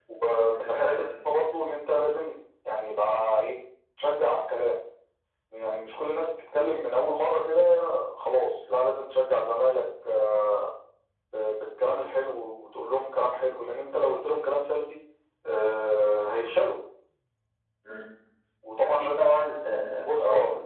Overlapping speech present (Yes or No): Yes